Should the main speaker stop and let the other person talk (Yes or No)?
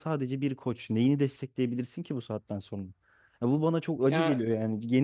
No